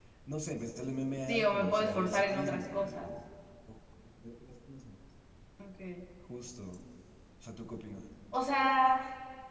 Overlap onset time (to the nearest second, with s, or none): 1 s